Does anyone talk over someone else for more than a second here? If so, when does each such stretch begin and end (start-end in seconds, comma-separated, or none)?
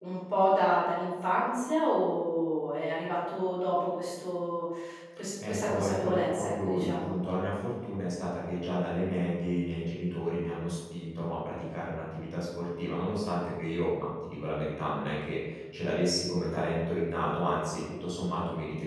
5.5-7.1